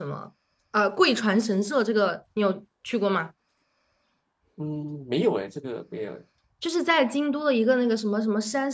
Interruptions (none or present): none